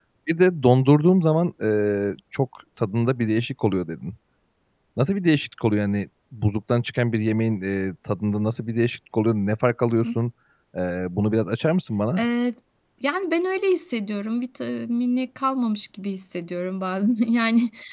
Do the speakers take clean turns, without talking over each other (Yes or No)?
Yes